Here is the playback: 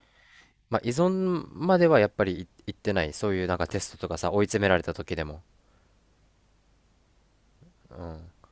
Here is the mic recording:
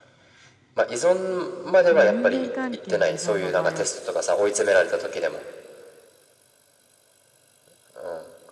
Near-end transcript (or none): この人間関係の依存の場合は